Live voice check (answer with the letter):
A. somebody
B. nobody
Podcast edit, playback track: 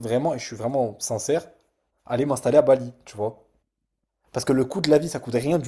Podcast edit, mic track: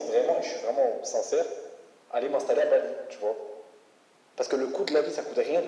B